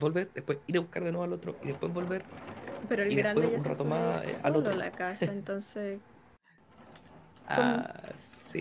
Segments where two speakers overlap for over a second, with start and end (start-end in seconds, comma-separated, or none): 3.1-4.8